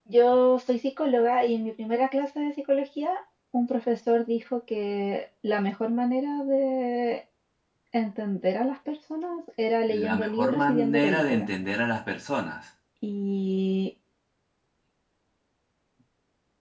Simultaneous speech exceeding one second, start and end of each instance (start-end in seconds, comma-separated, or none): 10.0-11.5